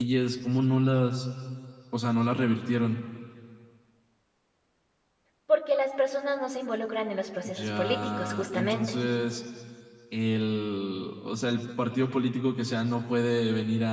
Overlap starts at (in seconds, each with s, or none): 7.4 s